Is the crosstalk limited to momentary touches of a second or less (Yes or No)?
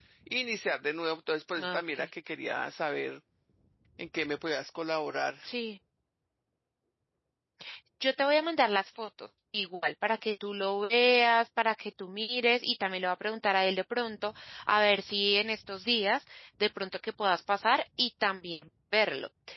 Yes